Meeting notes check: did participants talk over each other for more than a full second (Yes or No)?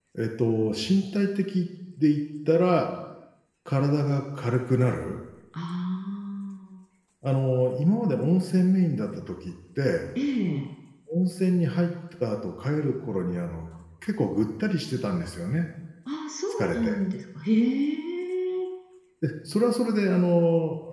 No